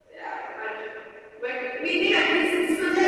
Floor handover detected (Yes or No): Yes